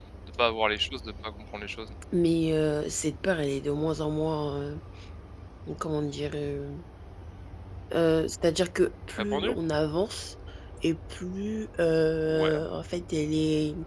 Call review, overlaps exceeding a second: none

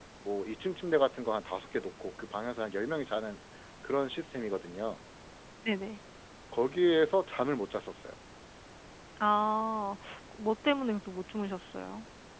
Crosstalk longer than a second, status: none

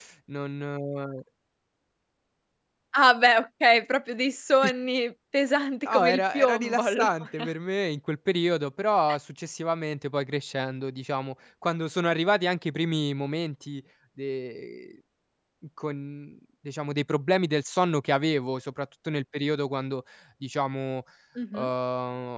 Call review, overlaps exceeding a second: present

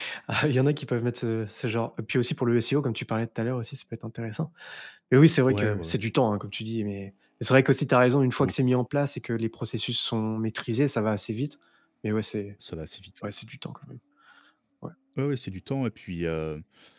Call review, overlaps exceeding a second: none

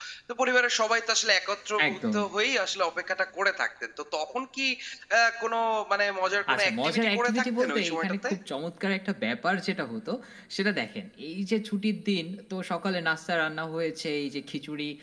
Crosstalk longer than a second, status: present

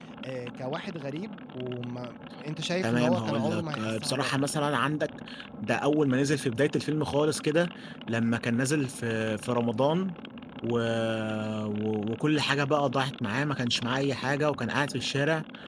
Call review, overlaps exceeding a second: present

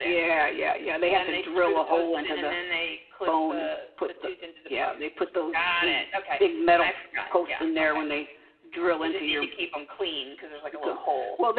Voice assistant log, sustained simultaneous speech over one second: present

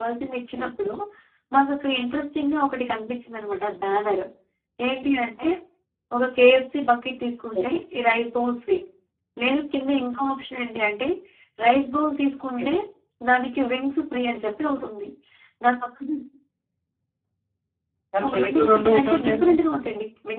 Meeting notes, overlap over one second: present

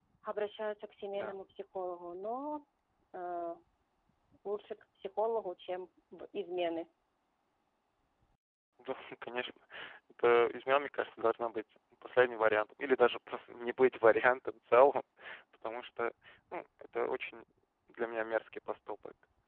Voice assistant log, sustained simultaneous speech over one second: none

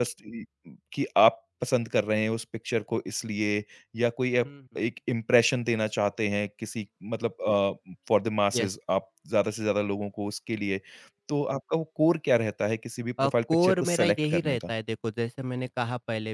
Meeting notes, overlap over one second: present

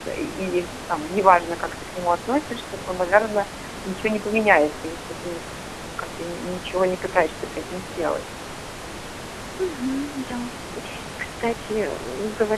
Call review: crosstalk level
none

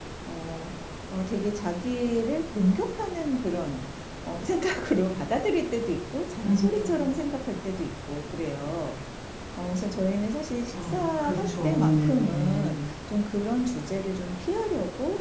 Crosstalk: present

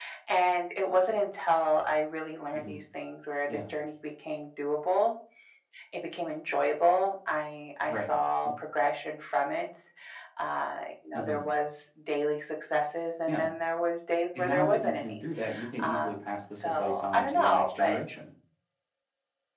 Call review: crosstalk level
present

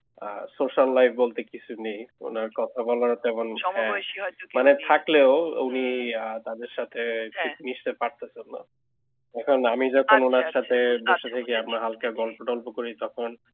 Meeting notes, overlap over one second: present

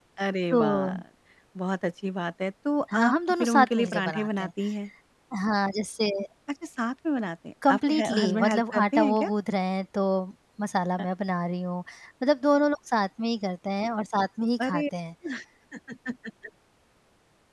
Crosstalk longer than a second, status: present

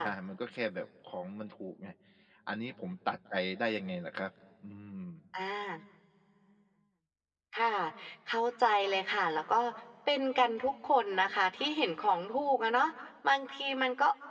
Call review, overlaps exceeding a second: none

